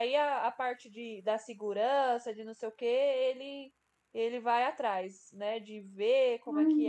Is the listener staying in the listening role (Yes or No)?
Yes